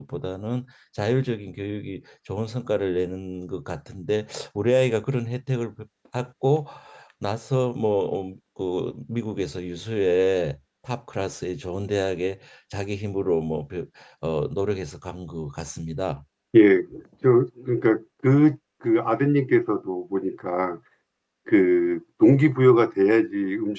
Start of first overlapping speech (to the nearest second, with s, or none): none